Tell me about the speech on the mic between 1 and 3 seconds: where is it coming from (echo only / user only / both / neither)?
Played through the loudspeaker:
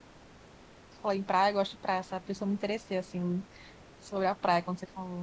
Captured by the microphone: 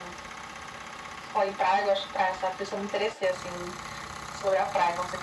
echo only